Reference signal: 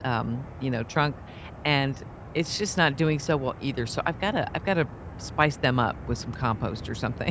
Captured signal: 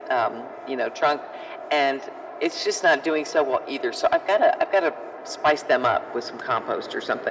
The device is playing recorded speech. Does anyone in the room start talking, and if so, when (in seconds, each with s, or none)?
none